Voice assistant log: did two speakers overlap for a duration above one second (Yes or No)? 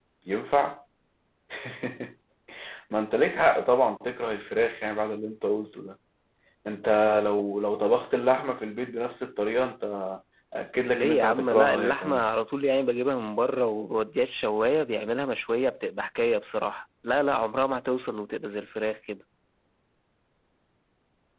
Yes